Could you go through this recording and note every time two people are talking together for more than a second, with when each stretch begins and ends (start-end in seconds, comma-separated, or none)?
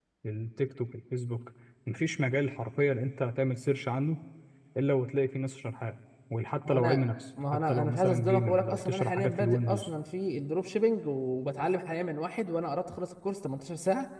7.5-9.9